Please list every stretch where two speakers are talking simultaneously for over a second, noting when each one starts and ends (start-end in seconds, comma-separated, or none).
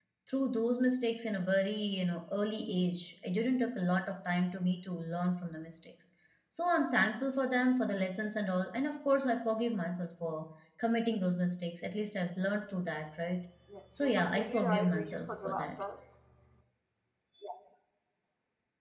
14.0-15.8